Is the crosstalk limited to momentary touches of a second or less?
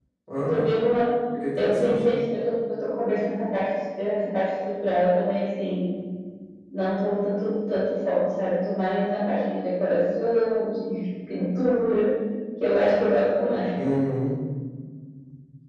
Yes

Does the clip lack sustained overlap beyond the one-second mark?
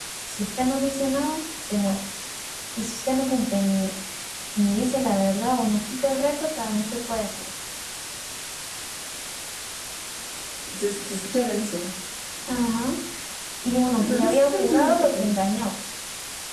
No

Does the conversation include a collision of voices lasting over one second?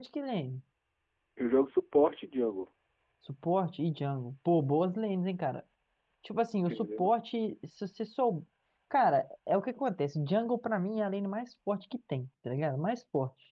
No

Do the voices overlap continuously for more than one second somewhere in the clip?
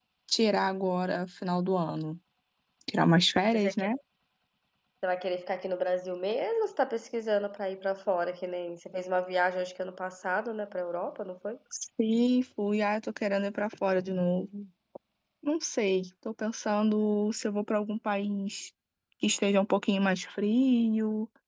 No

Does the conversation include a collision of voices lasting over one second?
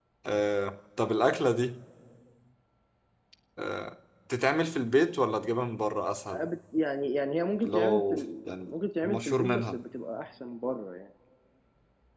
Yes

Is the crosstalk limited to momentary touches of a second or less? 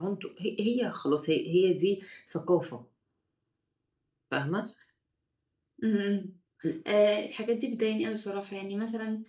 Yes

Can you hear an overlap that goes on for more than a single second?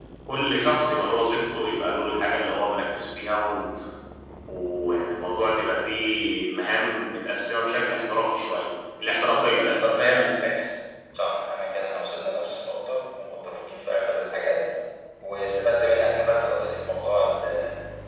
No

